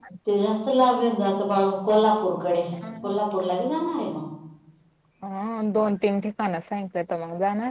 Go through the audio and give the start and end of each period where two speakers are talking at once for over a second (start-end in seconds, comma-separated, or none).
none